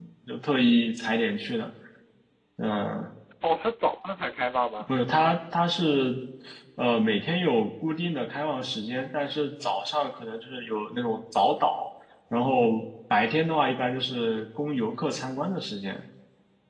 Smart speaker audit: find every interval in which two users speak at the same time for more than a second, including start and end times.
none

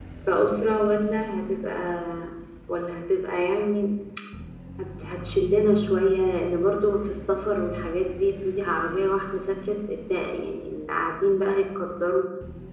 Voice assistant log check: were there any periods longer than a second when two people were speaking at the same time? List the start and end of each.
none

